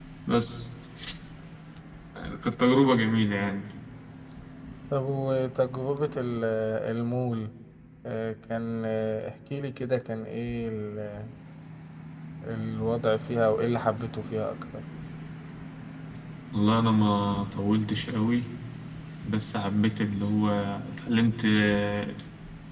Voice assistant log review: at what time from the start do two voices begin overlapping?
none

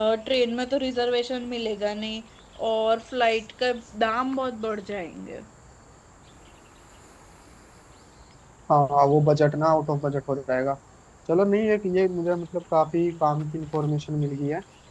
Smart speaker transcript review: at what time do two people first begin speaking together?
none

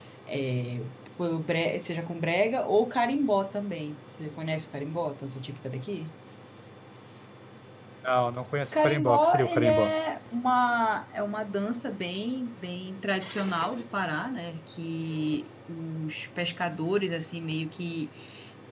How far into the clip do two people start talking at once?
8.7 s

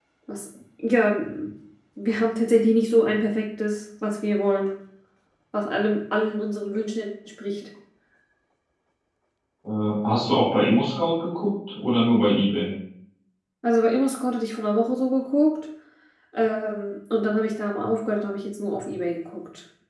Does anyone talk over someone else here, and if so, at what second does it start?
none

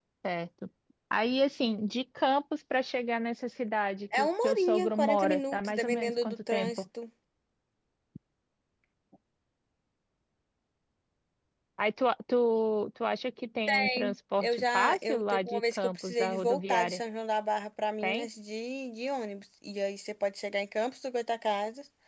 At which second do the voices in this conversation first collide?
4.1 s

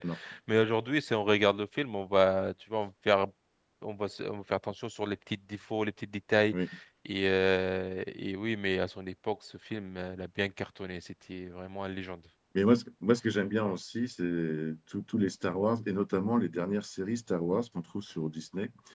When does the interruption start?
none

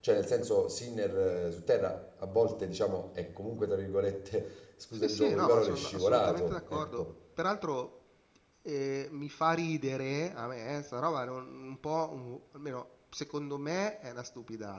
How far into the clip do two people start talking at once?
4.9 s

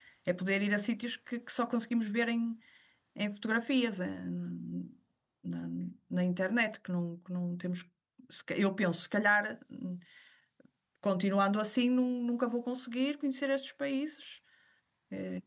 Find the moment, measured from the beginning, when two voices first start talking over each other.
none

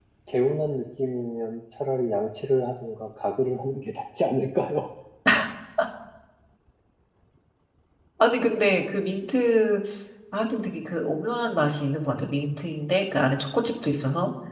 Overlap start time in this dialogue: none

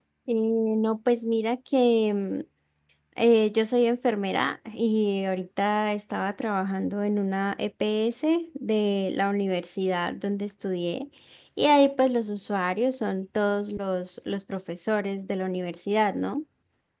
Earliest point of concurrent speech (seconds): none

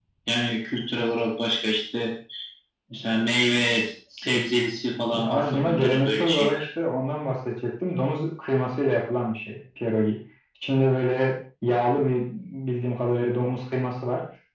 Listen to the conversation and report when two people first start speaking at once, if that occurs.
5.1 s

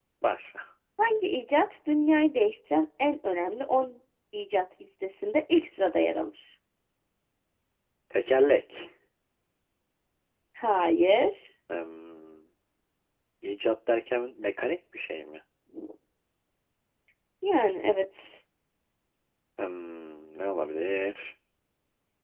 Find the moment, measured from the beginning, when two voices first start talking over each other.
none

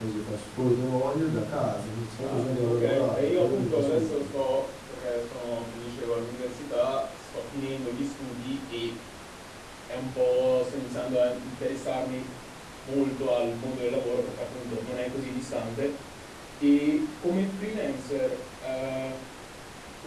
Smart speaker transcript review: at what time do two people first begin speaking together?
2.2 s

